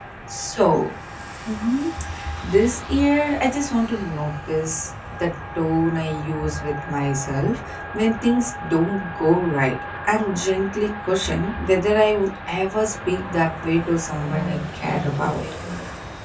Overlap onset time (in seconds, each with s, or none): 14.2 s